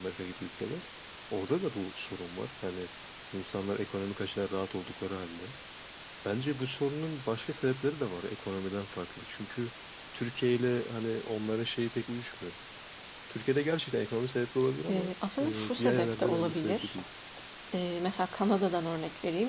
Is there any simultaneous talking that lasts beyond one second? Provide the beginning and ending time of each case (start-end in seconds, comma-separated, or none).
14.9-17.0